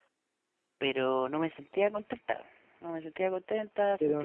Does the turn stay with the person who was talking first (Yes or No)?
No